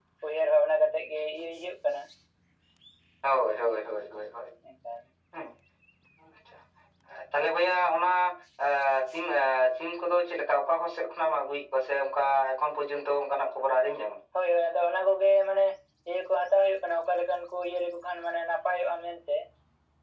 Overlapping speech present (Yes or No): No